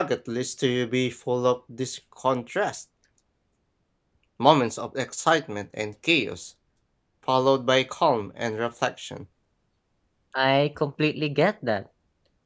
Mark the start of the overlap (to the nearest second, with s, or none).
none